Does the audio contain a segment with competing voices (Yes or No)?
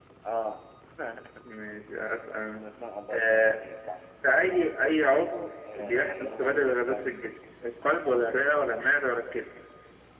Yes